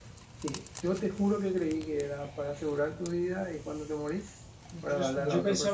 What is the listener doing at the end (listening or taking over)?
taking over